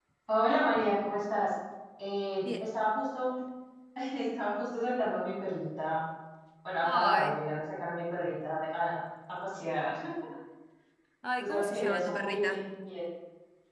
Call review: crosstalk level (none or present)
present